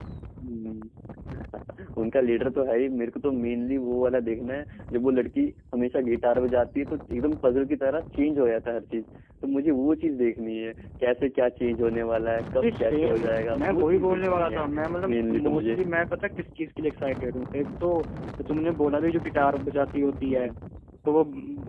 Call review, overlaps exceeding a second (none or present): present